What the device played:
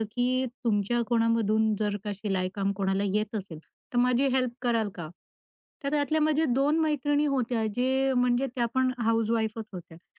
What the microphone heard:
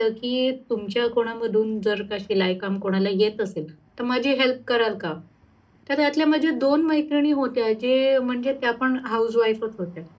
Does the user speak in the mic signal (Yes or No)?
No